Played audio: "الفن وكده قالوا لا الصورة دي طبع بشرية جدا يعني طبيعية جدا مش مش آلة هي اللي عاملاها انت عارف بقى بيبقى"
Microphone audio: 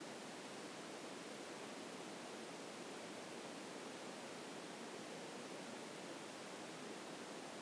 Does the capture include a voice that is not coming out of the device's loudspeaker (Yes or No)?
No